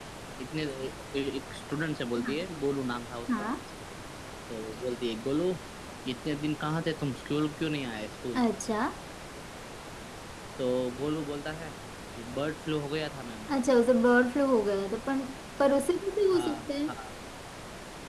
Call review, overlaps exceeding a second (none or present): none